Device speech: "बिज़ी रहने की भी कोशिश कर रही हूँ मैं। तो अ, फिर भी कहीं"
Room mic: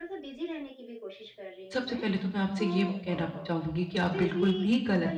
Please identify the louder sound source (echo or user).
user